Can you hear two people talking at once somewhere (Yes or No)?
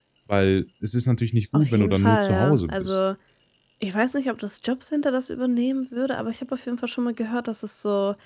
Yes